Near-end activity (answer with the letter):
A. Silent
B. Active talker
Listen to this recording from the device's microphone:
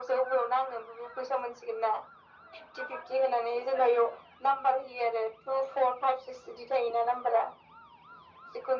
A